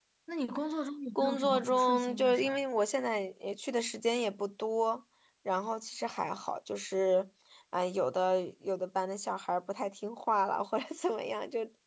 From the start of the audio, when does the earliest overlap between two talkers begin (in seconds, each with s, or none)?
1.2 s